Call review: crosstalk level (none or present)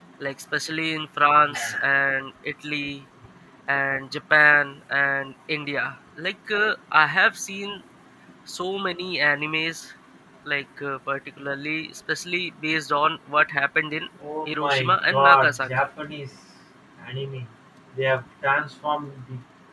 present